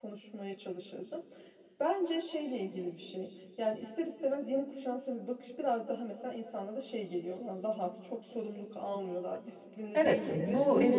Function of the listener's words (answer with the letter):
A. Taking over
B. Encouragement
A